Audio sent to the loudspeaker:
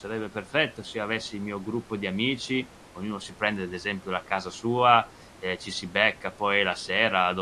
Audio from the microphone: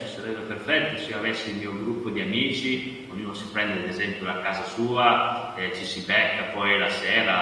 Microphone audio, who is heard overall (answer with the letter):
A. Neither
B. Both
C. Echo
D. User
C